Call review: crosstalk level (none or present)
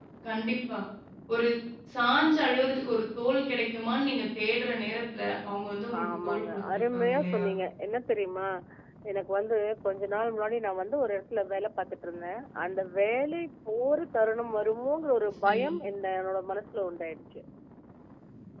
present